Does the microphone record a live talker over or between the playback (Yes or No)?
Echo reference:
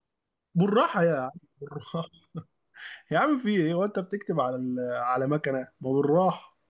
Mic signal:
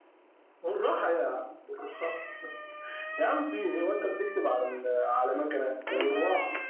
No